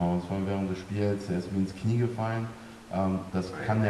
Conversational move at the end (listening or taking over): listening